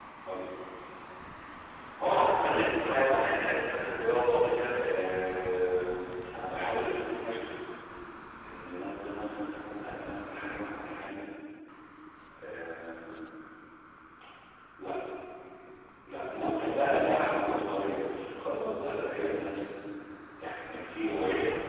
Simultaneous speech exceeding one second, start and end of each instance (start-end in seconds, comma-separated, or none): none